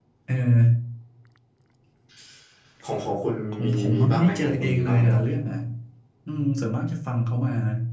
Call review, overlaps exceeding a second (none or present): present